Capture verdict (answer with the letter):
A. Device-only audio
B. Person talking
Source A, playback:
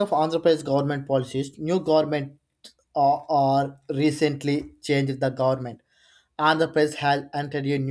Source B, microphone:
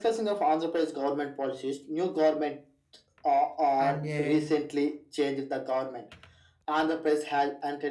B